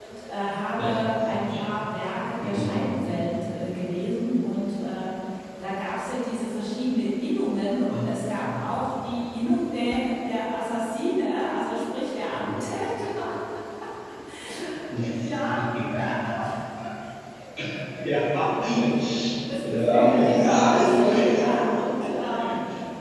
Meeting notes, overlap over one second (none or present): present